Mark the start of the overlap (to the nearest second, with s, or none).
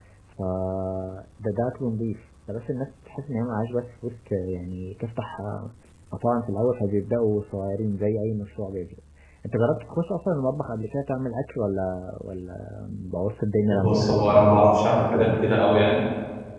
14 s